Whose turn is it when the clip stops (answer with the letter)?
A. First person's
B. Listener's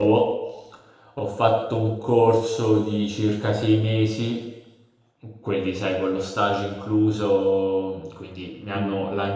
A